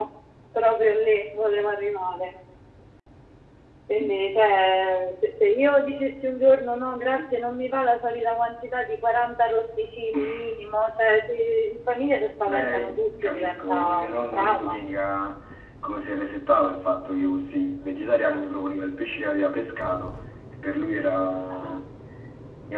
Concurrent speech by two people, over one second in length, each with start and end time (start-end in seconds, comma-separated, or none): 12.4-14.8